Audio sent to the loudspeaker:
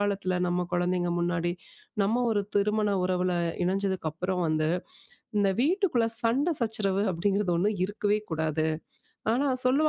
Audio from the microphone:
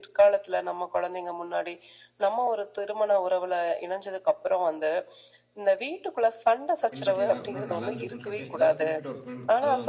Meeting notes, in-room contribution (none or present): present